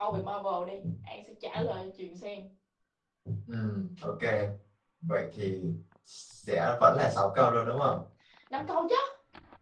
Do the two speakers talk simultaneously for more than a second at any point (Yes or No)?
No